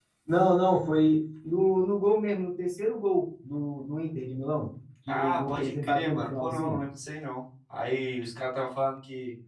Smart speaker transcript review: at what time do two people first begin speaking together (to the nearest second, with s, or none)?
5 s